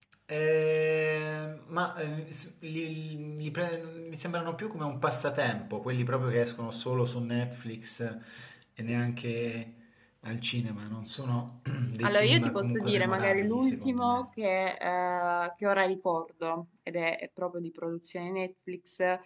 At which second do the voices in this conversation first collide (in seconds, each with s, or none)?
12.0 s